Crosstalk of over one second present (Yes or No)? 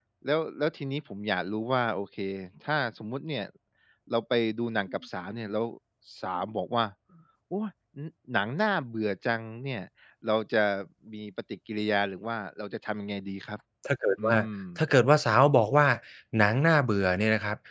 No